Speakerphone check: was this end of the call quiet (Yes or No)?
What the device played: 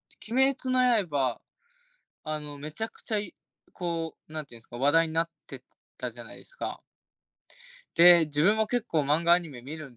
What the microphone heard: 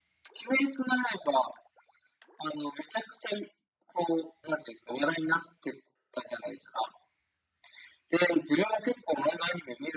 Yes